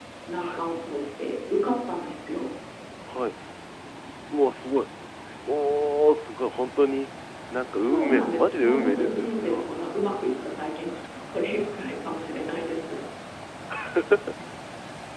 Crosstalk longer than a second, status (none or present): present